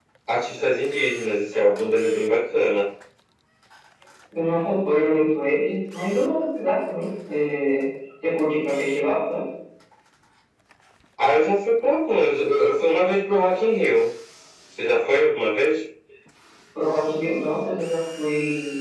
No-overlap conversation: Yes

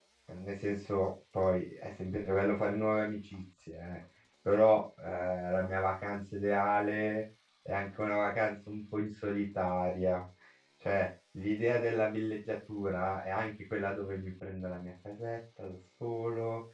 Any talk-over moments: No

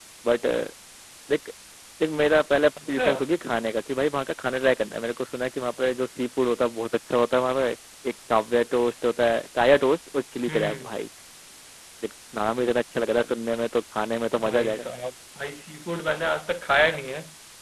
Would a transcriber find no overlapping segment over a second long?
Yes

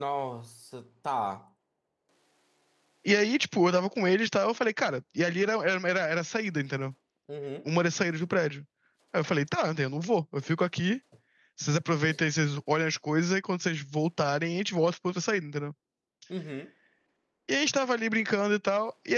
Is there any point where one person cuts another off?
No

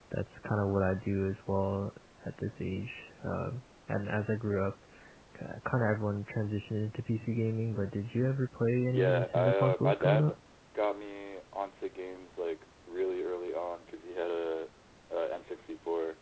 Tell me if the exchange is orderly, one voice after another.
No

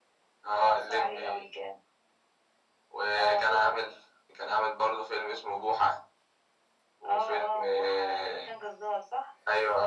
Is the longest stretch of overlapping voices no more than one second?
No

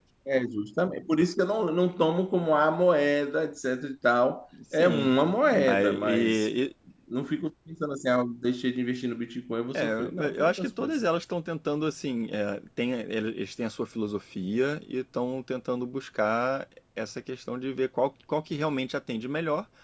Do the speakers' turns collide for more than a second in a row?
Yes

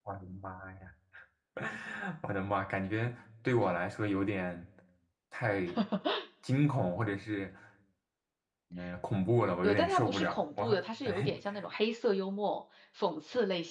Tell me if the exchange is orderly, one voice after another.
No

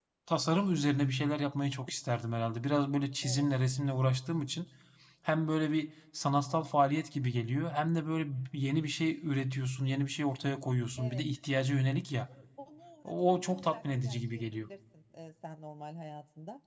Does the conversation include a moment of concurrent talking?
Yes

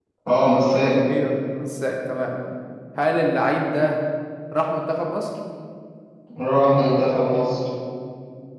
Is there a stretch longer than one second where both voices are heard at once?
No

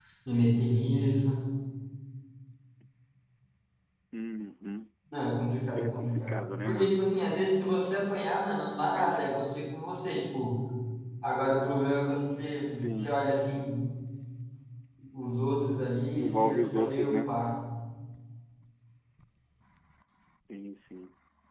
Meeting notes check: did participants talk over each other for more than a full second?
Yes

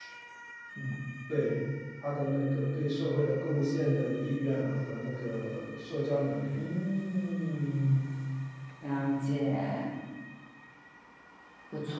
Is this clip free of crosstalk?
Yes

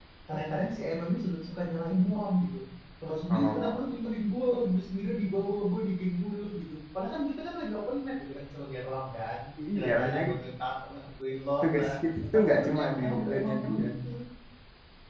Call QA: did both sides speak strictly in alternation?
No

